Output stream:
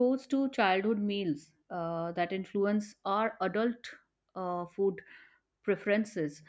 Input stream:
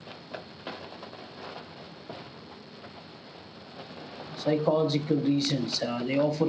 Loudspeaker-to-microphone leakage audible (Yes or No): No